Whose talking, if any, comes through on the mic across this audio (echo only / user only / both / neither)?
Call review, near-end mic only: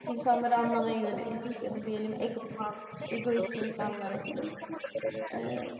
both